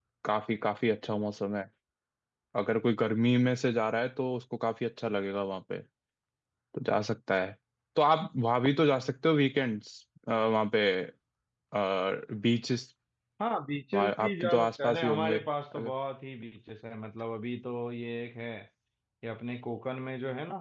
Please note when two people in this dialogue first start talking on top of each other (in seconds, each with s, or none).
14.0 s